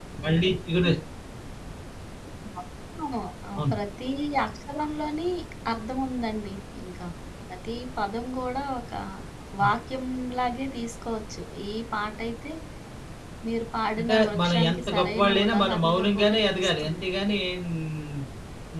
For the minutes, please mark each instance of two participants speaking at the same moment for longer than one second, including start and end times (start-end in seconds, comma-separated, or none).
14.0-17.1